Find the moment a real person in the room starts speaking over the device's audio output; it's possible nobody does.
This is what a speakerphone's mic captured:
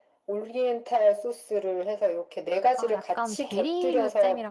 2.7 s

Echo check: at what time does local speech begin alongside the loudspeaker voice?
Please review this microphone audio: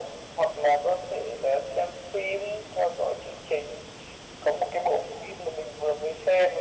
none

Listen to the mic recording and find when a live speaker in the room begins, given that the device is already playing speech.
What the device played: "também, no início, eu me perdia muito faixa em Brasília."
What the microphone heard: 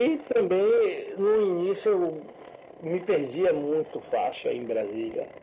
none

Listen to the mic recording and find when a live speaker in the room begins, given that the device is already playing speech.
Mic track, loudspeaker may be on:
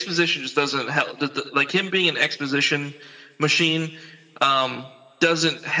none

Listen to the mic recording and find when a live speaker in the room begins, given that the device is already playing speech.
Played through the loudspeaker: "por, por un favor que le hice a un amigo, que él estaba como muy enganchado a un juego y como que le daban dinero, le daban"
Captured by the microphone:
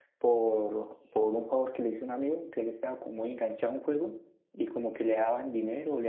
none

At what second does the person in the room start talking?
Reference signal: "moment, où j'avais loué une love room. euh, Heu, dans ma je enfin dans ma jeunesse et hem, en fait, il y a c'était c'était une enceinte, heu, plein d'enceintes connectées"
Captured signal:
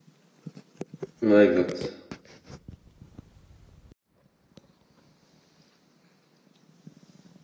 1.2 s

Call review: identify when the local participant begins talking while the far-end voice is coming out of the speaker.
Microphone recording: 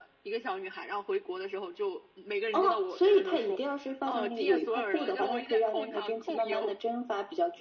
none

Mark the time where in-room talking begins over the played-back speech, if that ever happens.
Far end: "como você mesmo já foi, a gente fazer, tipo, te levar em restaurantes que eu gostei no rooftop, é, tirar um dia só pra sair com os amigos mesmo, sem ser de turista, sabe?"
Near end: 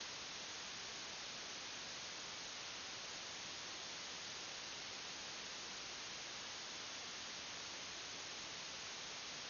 none

